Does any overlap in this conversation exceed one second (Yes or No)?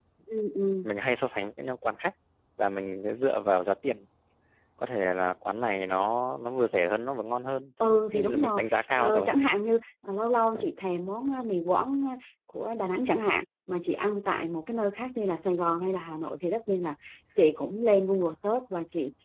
Yes